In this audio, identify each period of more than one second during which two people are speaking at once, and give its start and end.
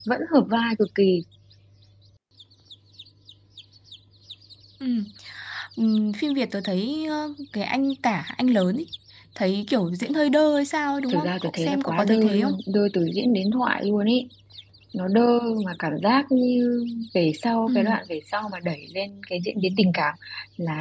11.1-12.5

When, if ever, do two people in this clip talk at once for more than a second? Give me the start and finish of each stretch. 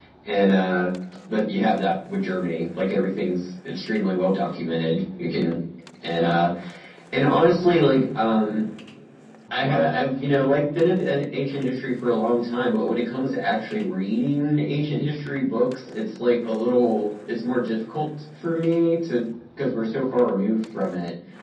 none

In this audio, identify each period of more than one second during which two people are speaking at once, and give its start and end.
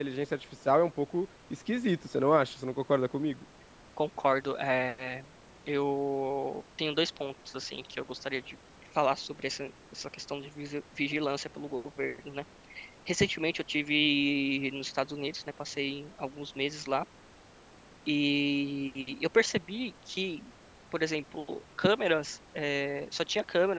none

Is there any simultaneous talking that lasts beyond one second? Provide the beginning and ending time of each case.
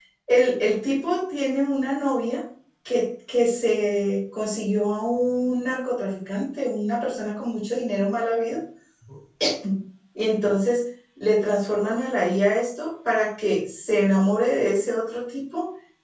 none

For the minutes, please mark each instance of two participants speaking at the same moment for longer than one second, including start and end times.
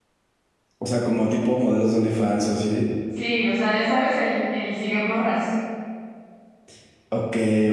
none

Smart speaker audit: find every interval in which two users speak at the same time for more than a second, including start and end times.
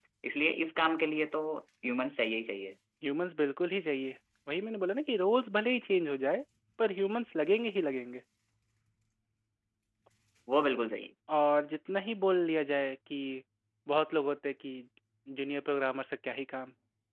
none

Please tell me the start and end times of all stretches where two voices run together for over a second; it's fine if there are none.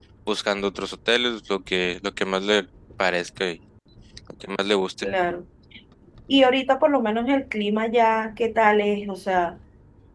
none

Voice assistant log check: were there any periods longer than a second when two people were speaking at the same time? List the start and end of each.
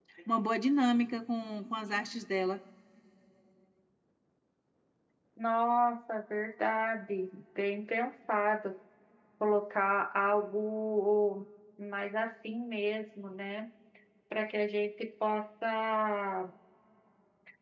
none

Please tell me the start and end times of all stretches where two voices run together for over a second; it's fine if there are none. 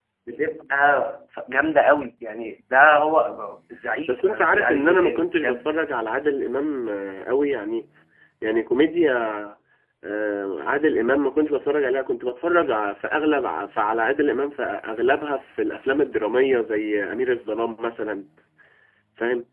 4.1-5.7

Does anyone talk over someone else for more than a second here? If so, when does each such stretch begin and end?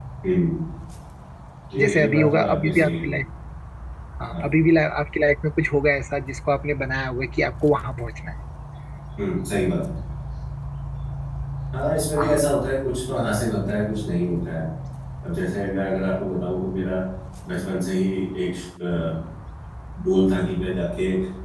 1.8-3.0

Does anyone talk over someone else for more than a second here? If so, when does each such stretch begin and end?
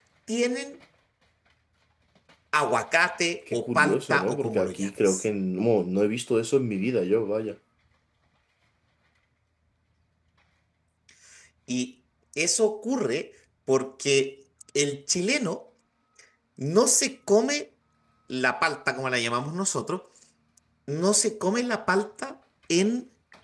3.5-5.1

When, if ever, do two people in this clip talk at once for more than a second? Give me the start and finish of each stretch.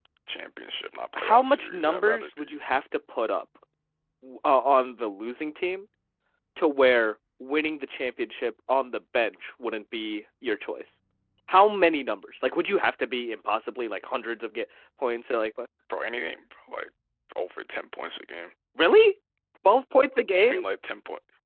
1.2-2.5

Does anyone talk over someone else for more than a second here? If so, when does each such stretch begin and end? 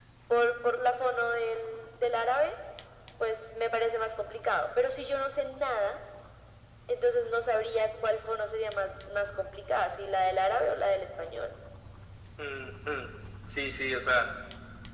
none

